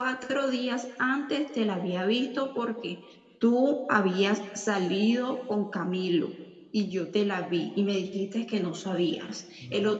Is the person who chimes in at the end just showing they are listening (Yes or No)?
Yes